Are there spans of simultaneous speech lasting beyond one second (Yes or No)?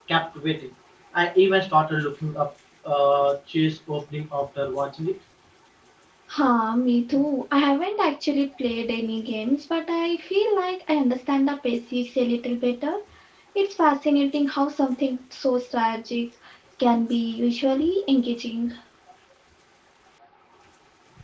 No